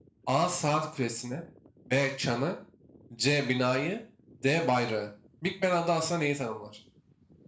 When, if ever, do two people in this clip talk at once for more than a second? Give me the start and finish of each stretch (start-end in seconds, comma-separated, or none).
none